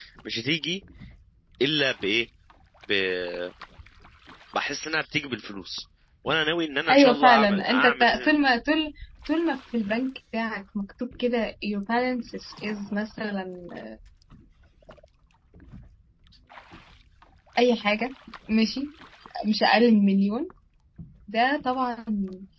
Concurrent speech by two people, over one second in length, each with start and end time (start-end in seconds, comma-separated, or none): 6.9-8.3